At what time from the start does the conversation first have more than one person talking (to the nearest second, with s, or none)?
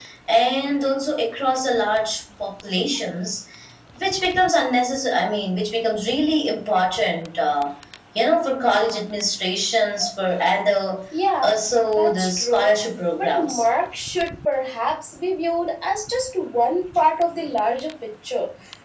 11 s